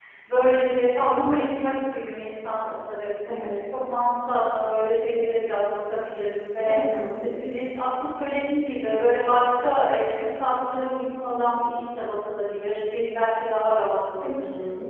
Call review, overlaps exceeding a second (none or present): none